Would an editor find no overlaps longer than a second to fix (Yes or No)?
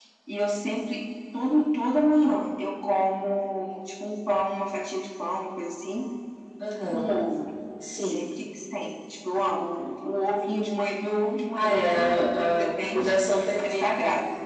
No